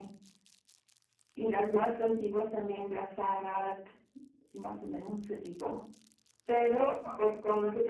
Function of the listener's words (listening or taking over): listening